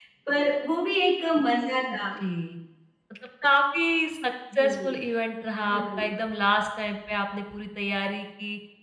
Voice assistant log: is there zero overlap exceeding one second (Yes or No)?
Yes